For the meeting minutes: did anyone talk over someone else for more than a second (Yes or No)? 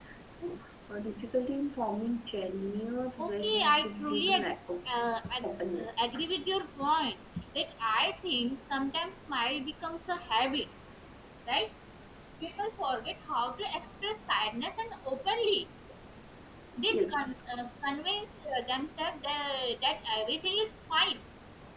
Yes